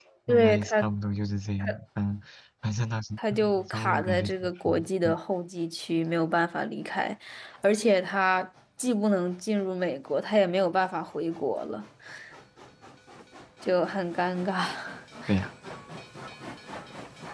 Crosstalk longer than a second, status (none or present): present